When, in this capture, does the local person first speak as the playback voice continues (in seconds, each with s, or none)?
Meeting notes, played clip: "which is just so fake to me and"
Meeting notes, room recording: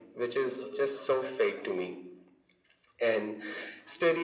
none